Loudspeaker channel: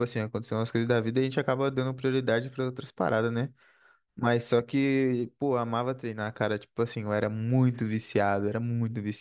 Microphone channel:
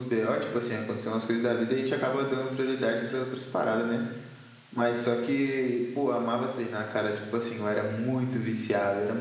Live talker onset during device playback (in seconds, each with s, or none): none